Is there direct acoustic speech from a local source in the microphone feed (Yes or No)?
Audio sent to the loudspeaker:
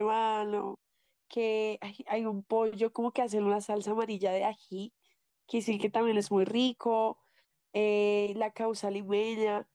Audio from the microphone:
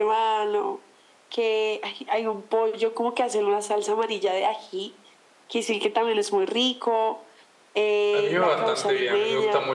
Yes